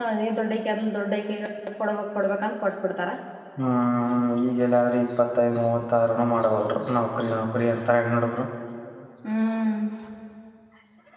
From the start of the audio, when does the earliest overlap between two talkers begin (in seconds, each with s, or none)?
none